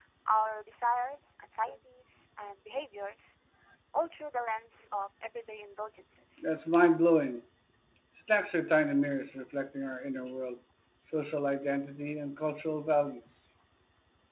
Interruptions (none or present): none